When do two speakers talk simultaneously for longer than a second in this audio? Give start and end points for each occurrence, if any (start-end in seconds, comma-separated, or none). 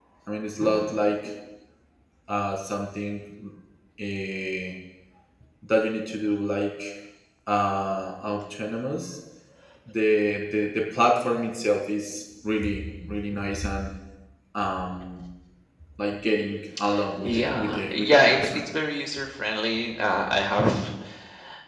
17.2-18.7